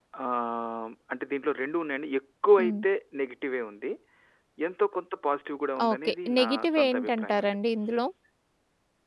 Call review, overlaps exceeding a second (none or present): present